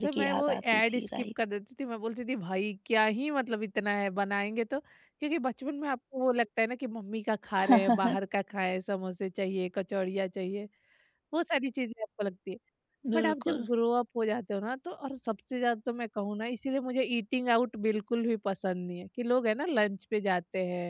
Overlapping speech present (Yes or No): Yes